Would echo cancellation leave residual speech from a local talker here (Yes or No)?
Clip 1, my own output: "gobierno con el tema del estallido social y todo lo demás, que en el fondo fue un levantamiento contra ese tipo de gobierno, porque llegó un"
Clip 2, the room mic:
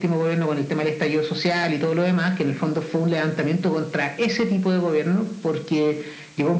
No